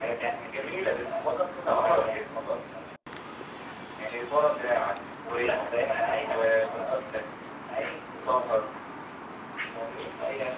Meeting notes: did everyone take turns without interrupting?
No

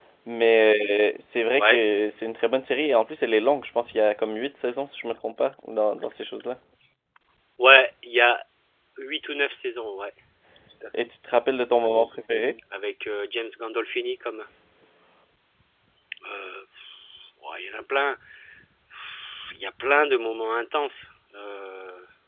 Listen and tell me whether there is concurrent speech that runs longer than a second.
No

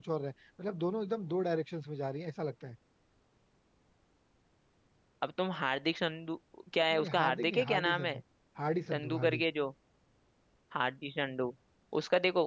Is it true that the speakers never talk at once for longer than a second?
No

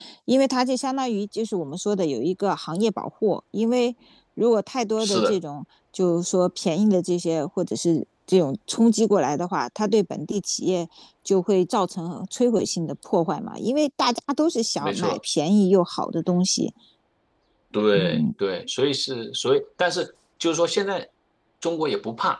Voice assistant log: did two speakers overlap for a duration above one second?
No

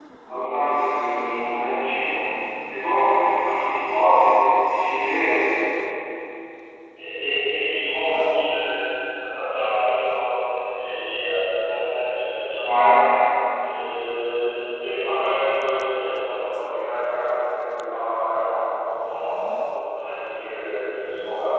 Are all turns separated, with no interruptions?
Yes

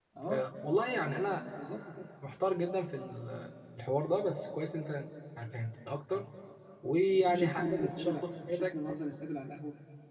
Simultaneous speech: Yes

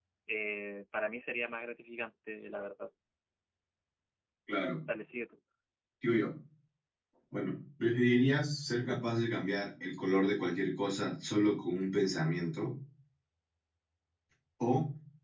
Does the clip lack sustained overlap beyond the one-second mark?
Yes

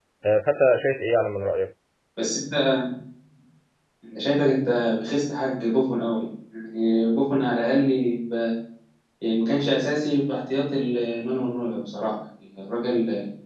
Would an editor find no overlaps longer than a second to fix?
Yes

